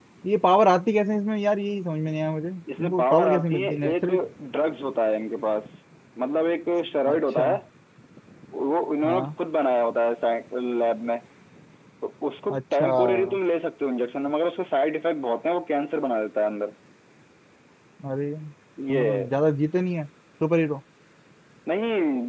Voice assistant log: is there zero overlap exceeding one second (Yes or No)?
No